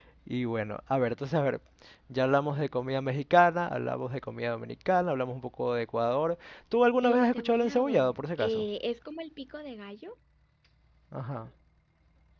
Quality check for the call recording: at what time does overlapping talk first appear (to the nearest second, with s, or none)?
7 s